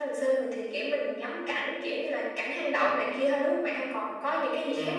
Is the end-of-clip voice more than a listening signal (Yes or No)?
Yes